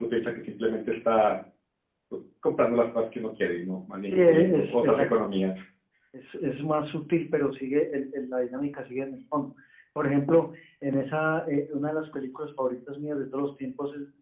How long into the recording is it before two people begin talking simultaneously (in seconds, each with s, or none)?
4.0 s